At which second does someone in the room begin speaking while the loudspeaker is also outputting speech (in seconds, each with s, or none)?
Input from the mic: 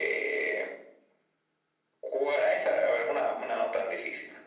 none